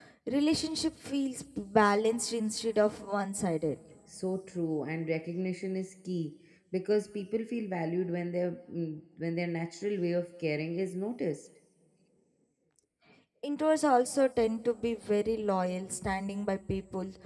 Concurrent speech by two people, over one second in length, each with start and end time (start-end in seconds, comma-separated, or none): none